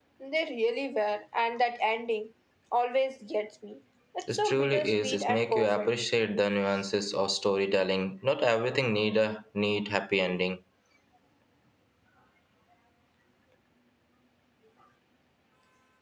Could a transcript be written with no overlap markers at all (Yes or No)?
No